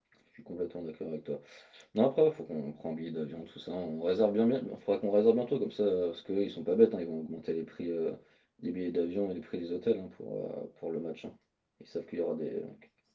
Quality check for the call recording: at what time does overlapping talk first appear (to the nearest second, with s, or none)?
none